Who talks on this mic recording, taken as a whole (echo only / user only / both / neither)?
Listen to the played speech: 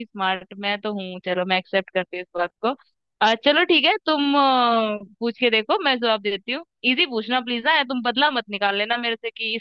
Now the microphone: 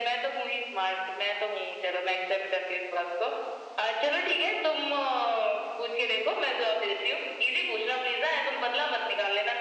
echo only